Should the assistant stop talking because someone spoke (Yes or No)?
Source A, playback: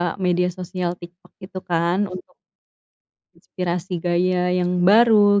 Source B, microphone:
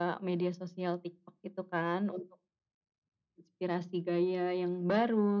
No